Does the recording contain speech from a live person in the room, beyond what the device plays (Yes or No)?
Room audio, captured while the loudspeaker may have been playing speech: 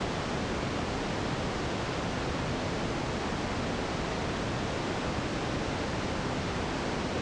No